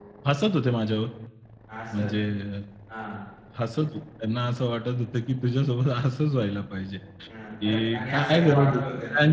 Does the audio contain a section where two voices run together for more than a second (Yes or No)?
Yes